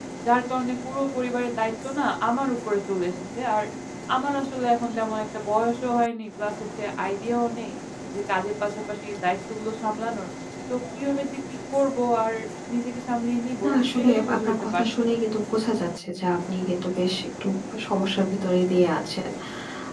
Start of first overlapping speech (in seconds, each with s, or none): 13.6 s